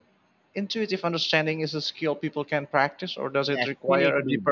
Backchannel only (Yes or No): No